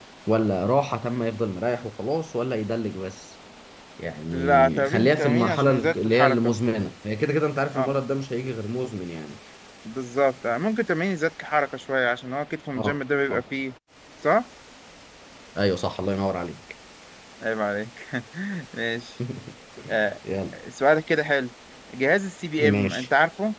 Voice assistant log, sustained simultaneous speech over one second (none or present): present